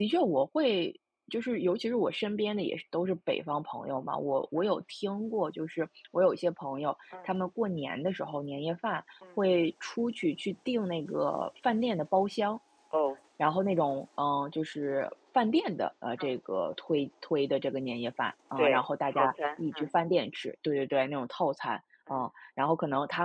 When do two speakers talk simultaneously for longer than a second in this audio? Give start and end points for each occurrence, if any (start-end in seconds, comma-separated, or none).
18.6-19.9